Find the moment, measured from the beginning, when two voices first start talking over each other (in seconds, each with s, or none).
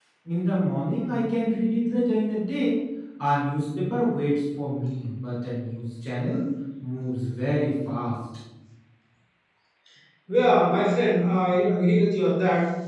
none